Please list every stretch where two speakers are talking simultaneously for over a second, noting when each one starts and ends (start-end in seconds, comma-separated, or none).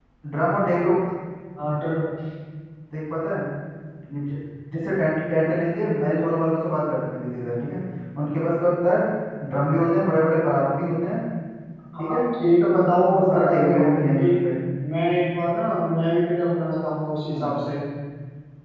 13.1-14.5